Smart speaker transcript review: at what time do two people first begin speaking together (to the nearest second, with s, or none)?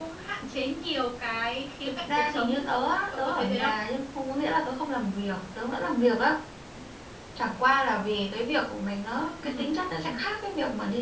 2 s